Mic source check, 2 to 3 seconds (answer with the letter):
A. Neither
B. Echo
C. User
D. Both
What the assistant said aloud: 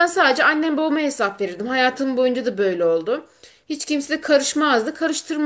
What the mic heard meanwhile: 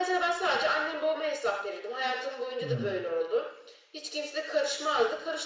D